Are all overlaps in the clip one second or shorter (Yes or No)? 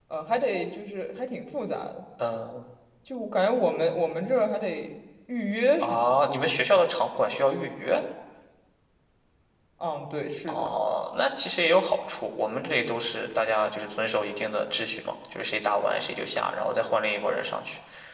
Yes